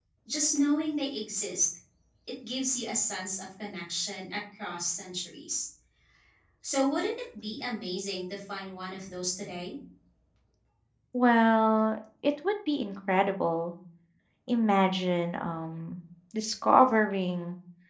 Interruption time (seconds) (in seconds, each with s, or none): none